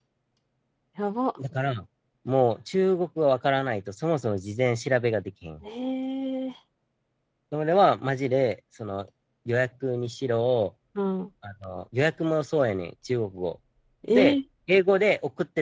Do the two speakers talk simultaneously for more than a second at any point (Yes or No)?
No